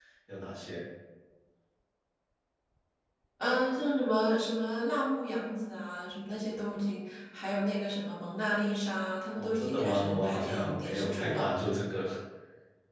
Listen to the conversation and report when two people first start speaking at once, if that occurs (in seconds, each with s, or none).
9.3 s